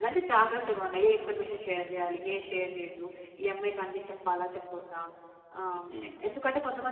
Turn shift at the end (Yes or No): No